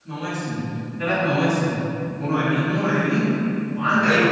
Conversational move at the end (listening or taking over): taking over